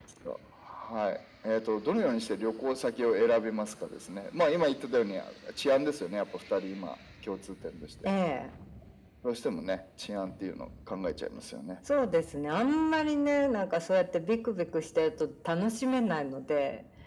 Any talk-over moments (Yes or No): No